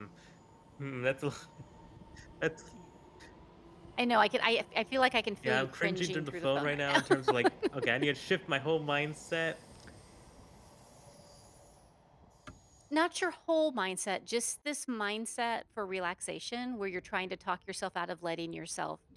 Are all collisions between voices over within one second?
No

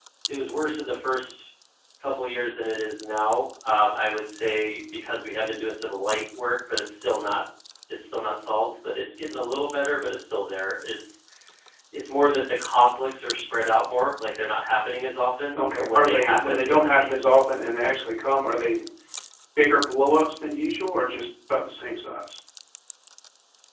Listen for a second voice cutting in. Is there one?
Yes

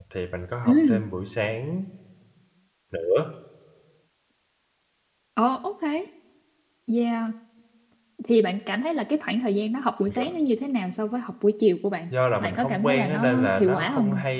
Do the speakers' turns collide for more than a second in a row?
Yes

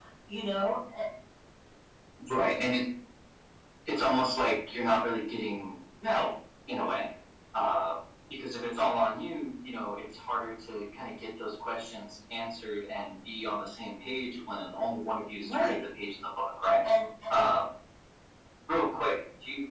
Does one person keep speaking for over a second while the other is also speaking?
No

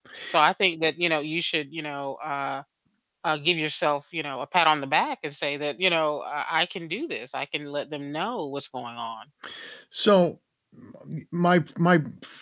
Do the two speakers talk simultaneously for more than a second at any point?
No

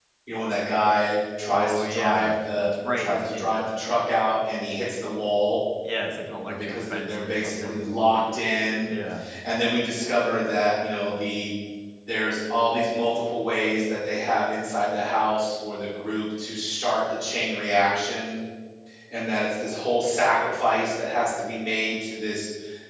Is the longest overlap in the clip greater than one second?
Yes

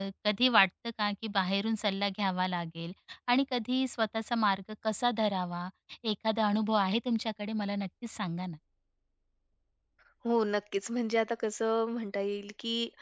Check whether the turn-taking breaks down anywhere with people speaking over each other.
No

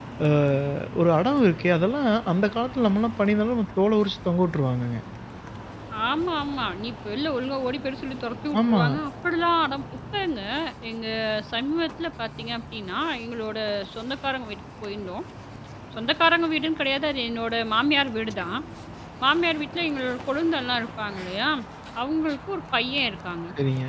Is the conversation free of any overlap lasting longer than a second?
Yes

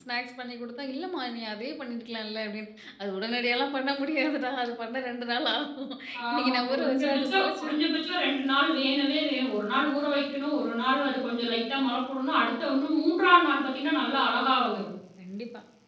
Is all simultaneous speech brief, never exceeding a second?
No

